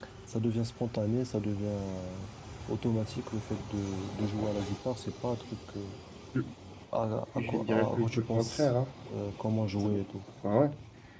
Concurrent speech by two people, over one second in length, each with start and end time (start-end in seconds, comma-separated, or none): 7.4-8.7